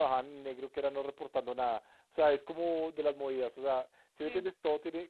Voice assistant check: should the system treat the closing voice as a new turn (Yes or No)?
No